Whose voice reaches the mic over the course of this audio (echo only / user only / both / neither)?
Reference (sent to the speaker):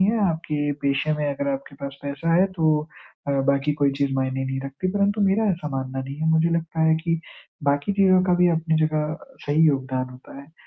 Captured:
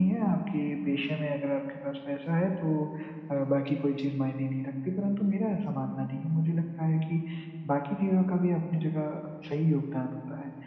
echo only